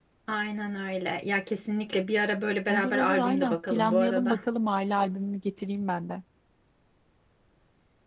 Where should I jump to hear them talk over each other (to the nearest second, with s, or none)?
3 s